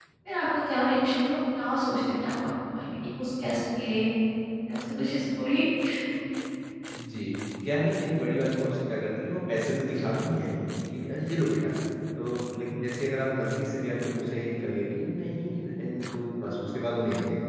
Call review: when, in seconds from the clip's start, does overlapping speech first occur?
none

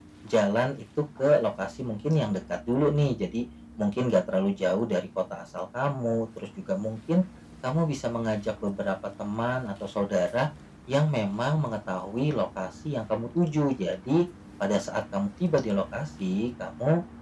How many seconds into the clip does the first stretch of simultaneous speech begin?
none

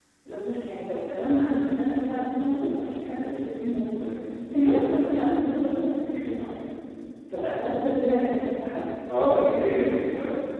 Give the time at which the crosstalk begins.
none

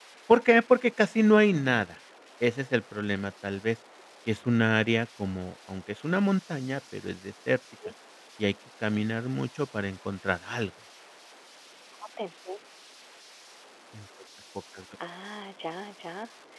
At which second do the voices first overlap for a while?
none

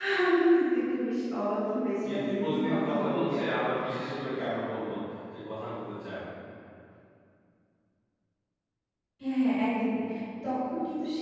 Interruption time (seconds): 2.0 s

